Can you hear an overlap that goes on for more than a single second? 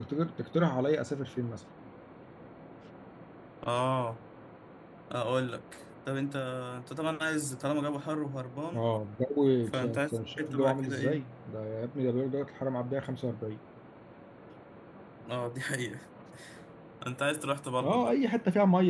Yes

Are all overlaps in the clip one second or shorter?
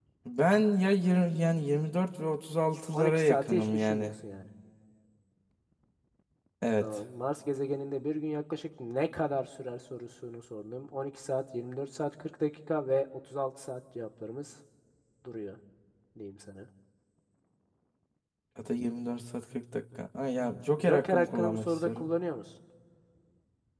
No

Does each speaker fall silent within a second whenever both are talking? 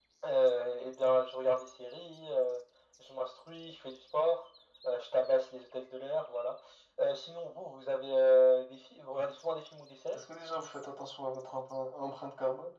Yes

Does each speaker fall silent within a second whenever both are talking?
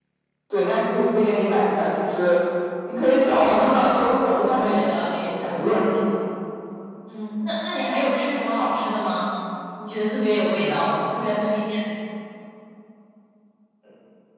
No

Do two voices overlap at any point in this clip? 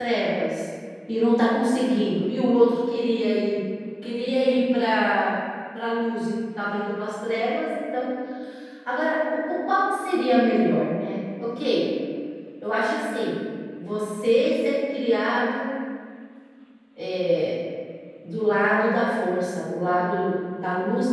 No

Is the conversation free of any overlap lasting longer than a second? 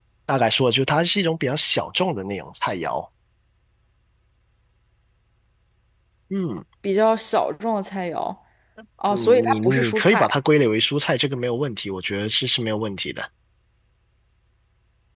No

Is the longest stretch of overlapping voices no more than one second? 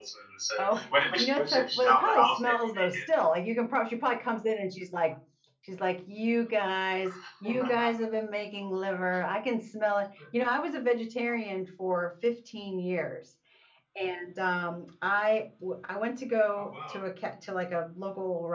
No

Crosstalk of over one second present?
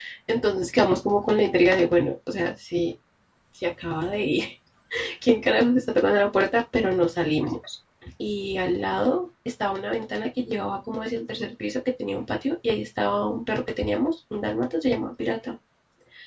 No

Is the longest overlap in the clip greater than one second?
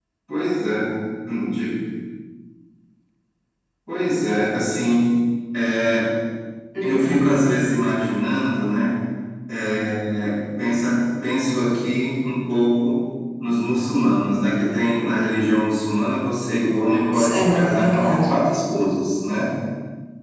Yes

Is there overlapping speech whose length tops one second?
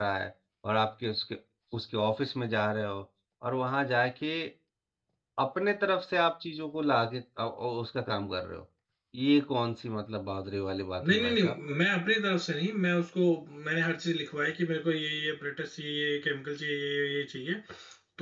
No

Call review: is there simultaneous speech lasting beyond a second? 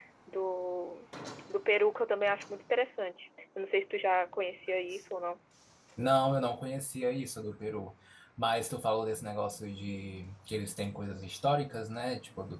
No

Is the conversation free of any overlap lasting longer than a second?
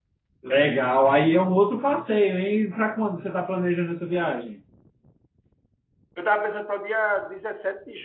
Yes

